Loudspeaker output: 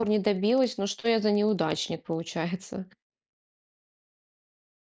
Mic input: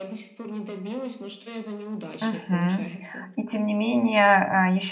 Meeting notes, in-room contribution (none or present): present